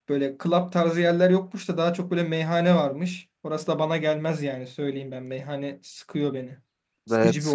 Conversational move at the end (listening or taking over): taking over